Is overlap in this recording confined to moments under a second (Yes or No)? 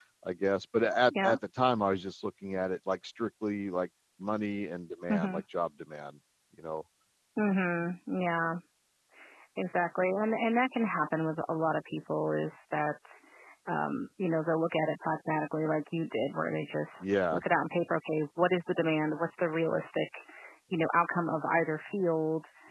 Yes